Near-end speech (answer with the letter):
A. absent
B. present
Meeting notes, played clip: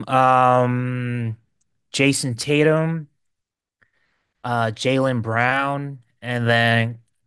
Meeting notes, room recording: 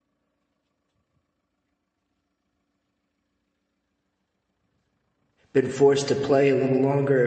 B